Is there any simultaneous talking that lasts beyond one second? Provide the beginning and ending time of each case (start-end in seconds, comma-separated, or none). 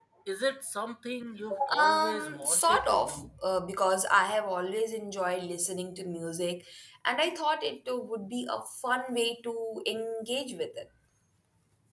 1.8-3.3